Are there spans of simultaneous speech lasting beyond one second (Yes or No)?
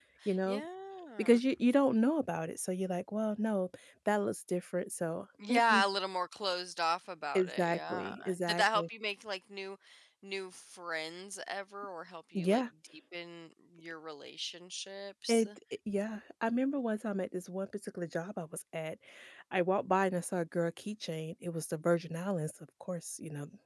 Yes